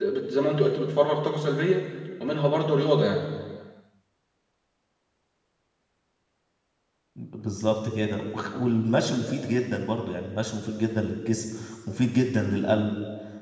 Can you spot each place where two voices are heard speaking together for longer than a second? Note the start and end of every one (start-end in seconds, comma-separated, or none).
none